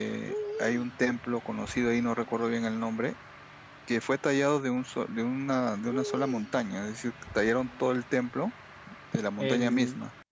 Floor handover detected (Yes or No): Yes